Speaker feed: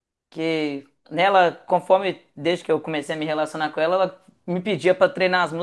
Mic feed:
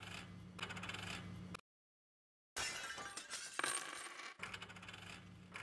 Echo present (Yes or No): No